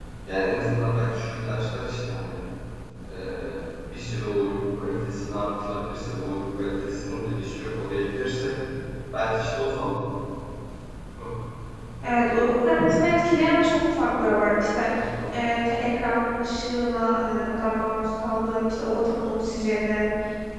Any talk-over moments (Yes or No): No